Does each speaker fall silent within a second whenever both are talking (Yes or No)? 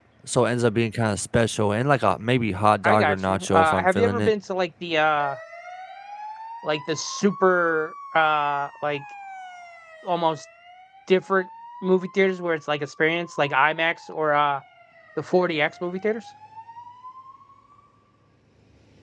No